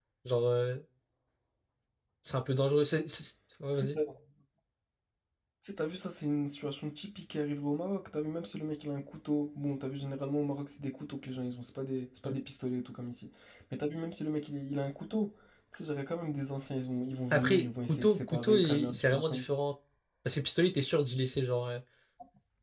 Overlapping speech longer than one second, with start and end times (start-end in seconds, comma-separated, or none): 17.3-19.5